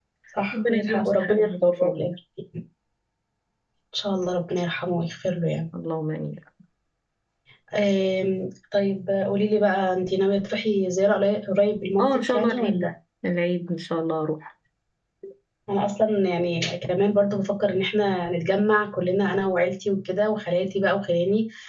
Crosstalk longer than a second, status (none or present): present